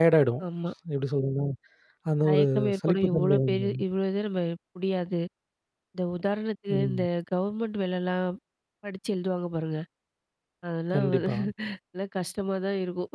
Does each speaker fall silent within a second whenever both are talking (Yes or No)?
No